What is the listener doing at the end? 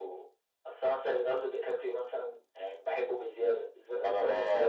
taking over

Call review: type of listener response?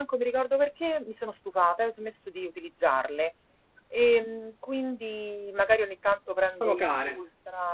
listening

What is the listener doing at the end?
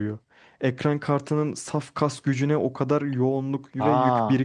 taking over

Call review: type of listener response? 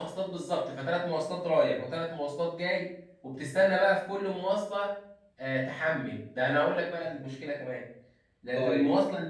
listening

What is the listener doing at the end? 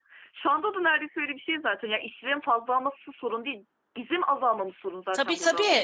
taking over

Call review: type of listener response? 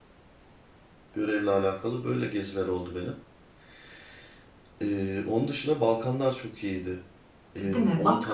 taking over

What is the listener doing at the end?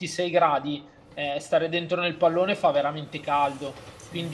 listening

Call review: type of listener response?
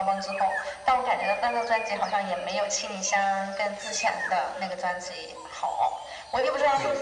listening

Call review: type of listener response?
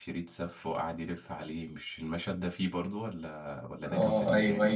taking over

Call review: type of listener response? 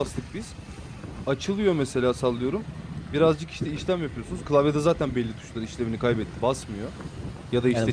taking over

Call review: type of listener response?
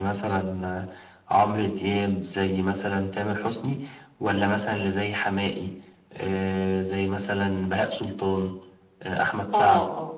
taking over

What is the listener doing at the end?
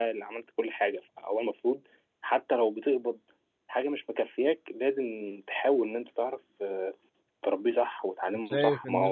taking over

